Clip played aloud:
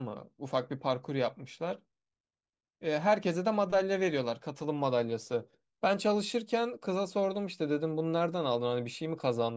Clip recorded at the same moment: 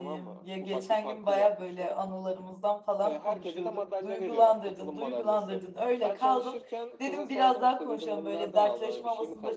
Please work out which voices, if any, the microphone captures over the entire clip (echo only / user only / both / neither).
both